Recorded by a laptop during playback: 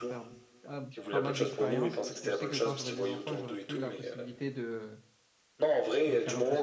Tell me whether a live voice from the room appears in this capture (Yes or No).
Yes